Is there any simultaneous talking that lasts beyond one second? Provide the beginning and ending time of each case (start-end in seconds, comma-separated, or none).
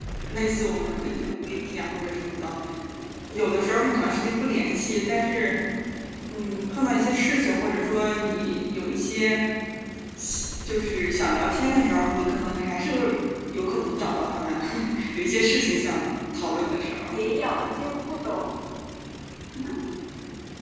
none